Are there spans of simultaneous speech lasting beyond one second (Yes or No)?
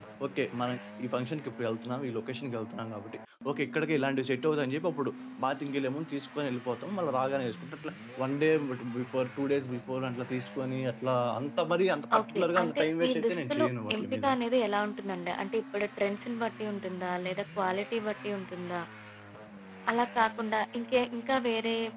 Yes